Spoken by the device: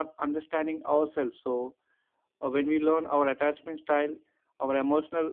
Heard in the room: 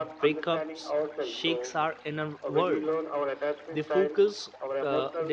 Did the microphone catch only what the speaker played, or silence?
No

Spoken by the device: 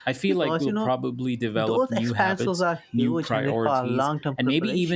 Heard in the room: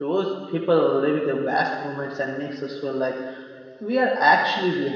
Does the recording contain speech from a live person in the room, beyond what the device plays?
Yes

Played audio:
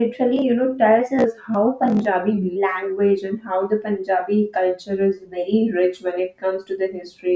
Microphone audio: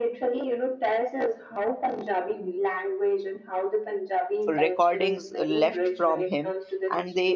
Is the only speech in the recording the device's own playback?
No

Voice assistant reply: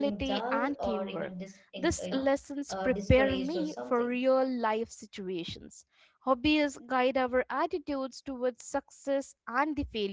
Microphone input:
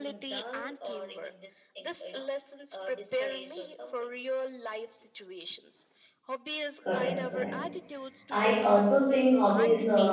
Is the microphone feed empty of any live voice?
No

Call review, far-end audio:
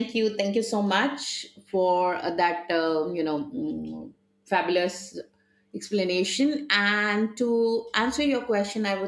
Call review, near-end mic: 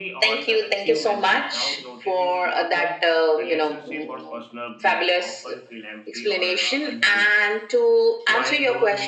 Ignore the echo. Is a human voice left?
Yes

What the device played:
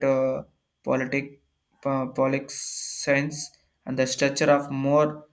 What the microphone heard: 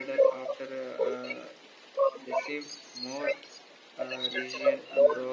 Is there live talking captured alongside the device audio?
Yes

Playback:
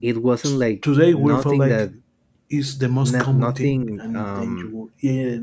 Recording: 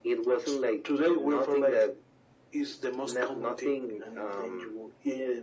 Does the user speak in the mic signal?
No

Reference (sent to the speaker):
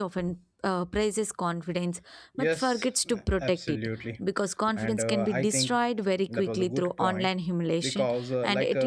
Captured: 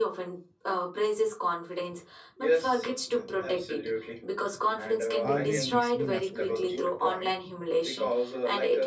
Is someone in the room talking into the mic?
Yes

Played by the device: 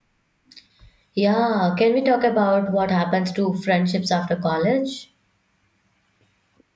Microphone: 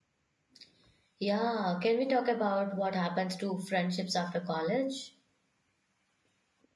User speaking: No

